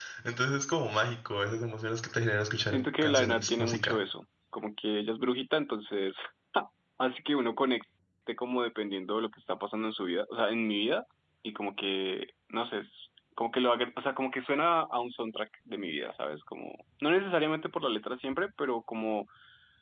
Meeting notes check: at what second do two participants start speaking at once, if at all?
2.7 s

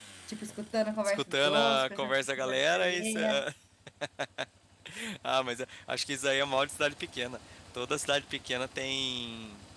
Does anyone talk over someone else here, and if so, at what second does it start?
1.0 s

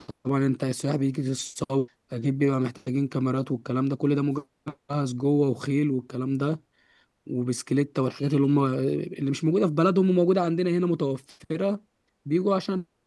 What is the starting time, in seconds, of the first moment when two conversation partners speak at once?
none

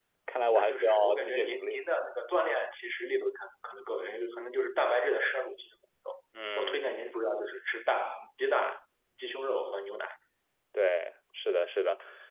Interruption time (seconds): 0.5 s

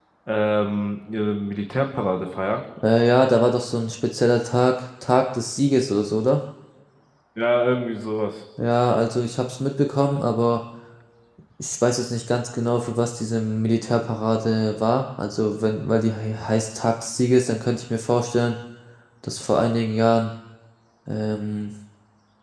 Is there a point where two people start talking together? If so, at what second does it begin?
none

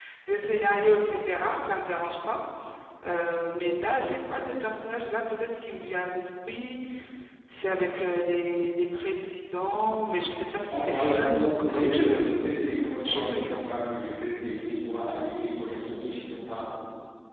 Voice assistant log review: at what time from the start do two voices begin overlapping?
10.7 s

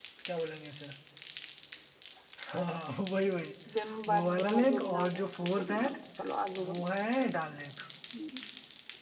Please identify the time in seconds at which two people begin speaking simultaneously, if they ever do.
4.1 s

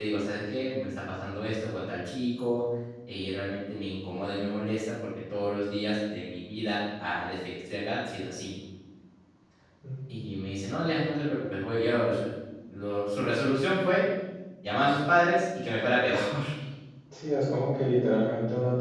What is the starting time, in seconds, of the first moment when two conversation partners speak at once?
none

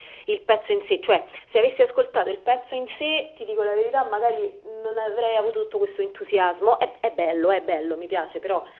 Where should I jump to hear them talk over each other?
none

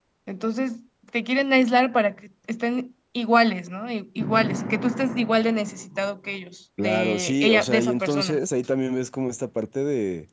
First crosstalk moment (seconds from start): 6.8 s

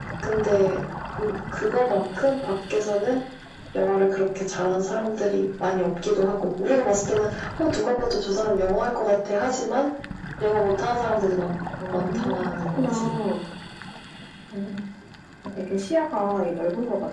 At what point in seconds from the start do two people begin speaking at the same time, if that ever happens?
11.8 s

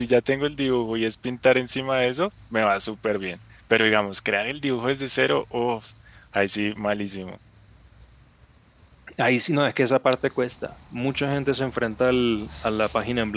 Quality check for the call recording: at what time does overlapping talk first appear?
none

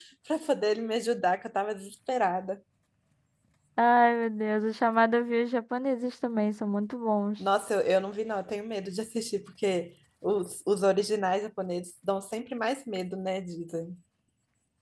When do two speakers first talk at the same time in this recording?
none

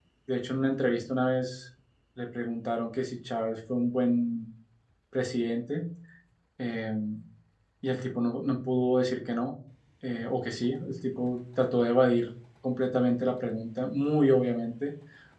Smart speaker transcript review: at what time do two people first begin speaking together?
none

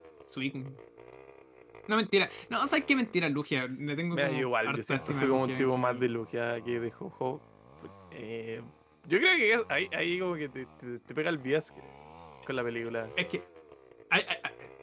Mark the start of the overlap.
4.1 s

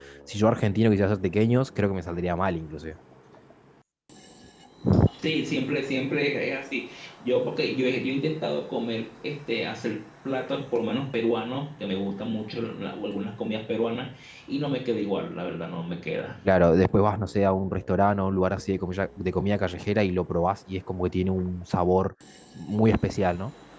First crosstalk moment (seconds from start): none

